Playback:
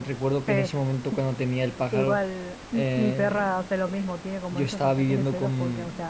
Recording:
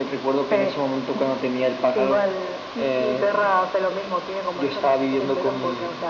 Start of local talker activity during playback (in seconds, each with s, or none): none